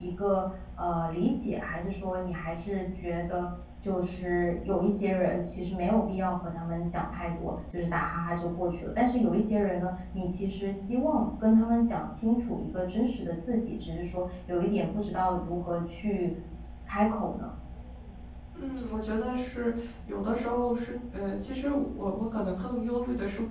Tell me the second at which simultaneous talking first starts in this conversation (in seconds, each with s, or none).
none